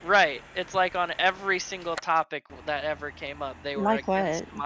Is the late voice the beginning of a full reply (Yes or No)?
No